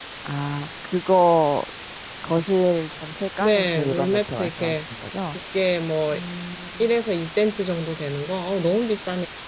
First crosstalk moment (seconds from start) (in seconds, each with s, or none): 3.4 s